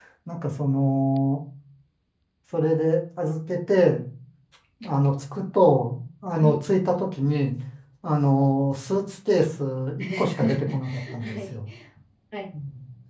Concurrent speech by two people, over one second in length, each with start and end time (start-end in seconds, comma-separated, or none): 10.0-11.5